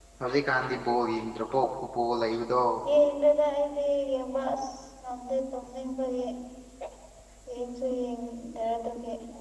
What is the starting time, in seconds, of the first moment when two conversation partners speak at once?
none

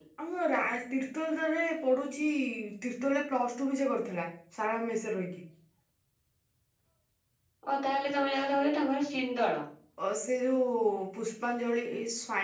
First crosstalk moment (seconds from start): none

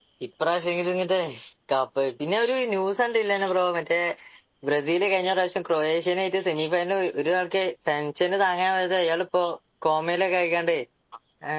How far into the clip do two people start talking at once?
none

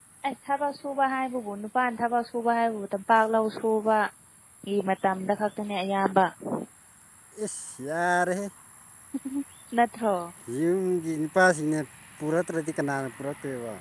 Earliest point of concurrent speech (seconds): none

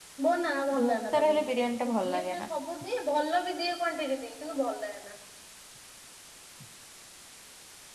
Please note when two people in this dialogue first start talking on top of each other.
0.8 s

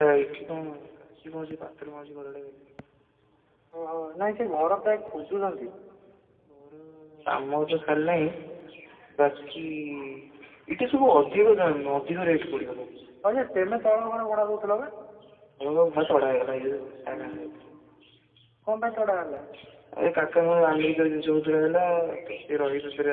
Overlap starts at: none

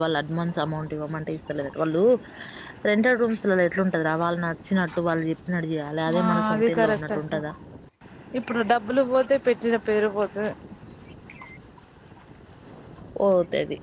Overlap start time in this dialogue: 6.1 s

